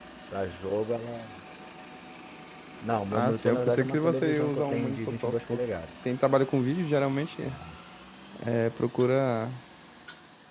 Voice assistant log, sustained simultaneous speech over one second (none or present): present